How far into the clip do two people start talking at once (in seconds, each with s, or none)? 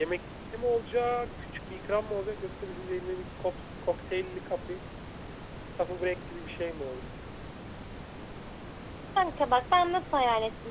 none